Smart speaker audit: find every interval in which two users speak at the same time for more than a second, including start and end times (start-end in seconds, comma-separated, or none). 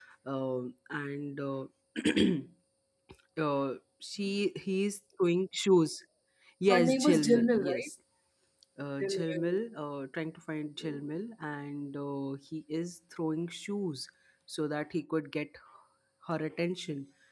6.7-7.9